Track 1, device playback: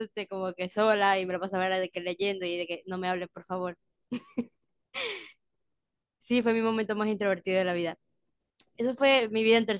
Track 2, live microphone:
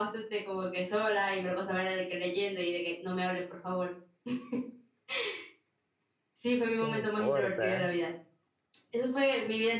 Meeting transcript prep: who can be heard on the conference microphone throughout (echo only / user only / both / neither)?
both